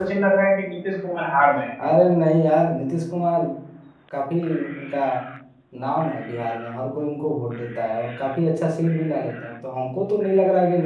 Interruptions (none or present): none